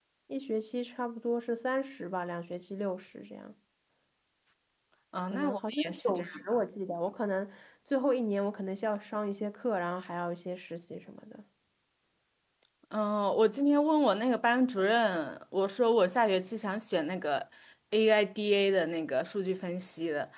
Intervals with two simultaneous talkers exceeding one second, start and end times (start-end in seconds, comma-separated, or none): 5.3-6.6